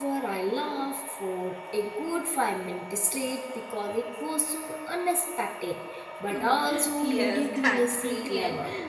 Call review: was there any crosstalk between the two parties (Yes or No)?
Yes